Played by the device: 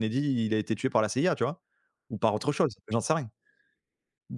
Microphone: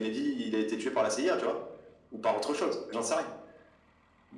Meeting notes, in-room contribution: none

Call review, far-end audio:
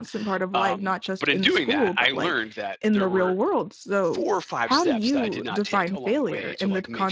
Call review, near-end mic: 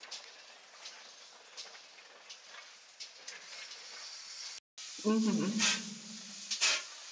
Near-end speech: present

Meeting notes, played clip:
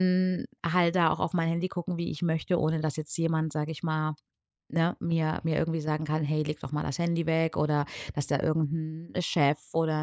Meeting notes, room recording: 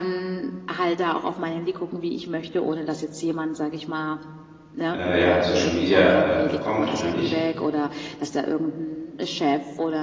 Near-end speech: present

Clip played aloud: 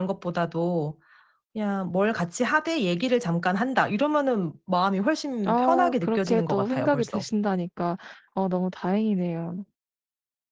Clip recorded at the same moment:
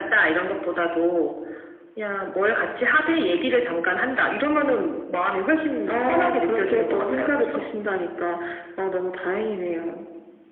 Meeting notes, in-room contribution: none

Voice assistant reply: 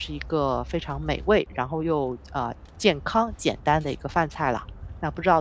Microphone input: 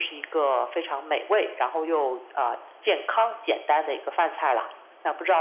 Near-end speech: none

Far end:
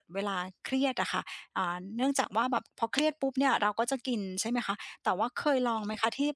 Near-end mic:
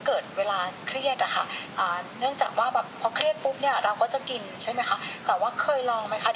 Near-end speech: none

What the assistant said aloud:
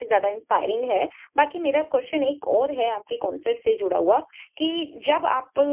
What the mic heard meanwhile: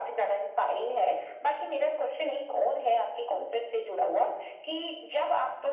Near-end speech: none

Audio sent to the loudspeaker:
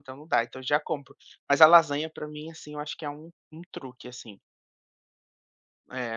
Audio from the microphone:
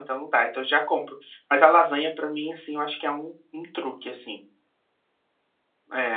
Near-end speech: none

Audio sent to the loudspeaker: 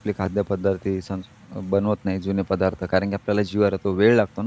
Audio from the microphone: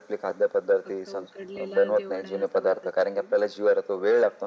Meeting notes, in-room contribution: present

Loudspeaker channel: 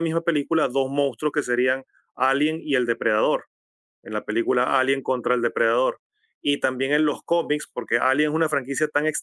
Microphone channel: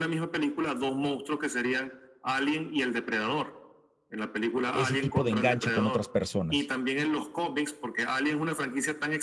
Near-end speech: present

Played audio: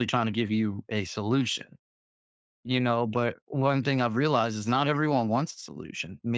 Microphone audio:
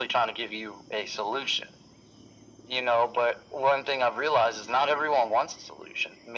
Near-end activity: none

